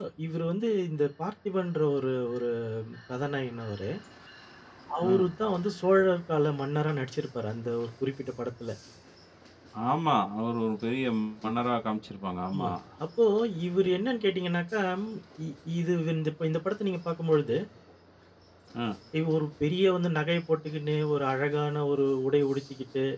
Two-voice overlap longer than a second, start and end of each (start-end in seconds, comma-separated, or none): none